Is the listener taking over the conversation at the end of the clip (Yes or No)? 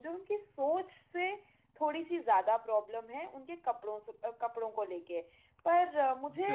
Yes